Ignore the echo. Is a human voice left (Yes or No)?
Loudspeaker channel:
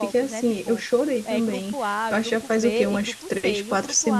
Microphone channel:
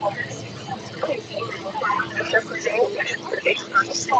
No